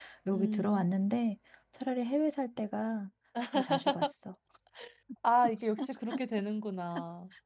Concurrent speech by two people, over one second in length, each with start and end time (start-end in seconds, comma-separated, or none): none